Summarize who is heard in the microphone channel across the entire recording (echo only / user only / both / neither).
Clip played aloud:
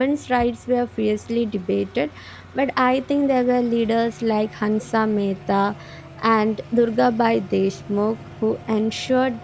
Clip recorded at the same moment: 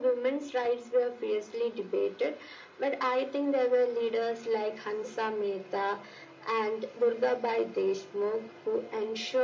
echo only